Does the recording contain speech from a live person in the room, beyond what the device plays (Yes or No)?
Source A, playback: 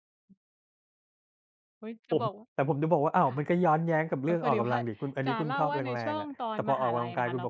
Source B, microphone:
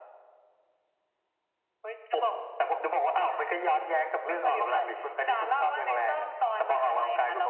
No